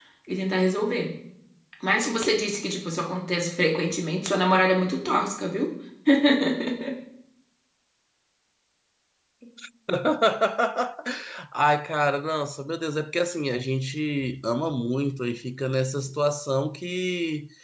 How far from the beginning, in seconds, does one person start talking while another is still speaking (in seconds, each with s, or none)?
none